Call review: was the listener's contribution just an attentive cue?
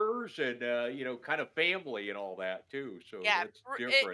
No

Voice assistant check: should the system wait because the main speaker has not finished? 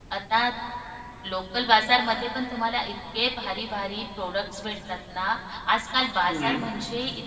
Yes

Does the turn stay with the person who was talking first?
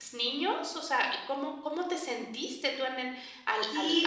No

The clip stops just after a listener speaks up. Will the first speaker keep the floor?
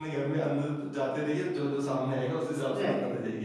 No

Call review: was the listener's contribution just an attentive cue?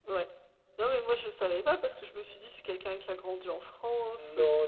No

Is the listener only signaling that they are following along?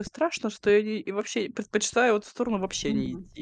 No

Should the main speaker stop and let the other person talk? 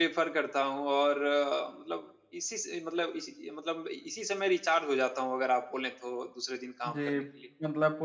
Yes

